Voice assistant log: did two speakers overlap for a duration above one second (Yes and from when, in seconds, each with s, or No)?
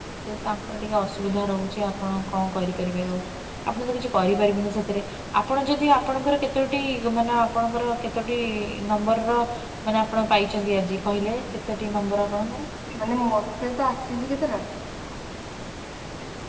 No